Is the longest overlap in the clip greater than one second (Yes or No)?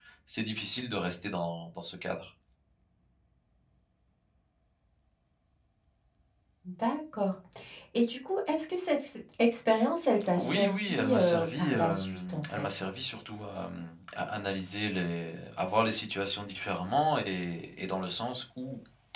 Yes